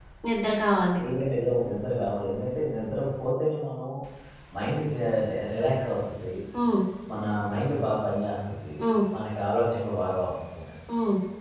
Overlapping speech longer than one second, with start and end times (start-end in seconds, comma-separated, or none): none